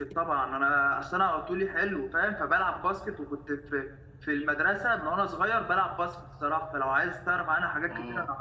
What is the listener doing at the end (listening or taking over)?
taking over